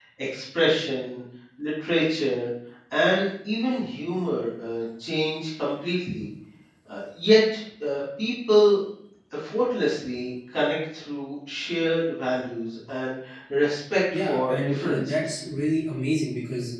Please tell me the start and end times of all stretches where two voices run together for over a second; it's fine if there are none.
14.1-15.4

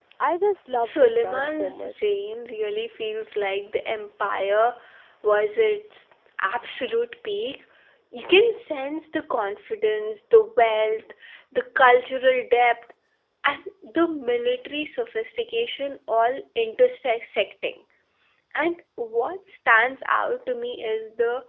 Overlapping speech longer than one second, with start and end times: 0.7-1.9

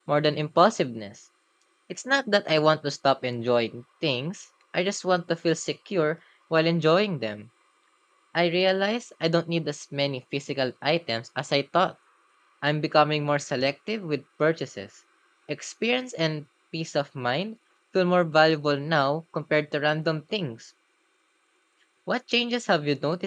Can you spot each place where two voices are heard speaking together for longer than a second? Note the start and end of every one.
none

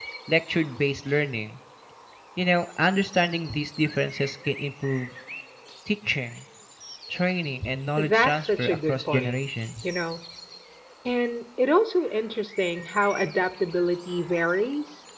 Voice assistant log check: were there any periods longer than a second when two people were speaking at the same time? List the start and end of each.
8.0-9.4

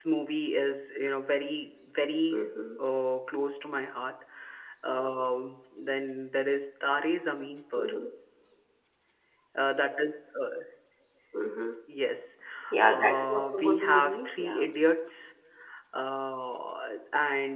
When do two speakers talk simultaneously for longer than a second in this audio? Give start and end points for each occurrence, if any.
12.8-14.7

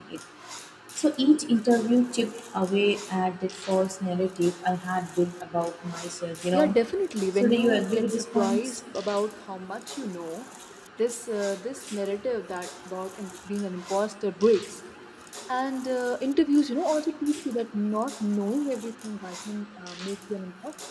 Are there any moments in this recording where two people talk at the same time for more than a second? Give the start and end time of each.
7.3-8.8

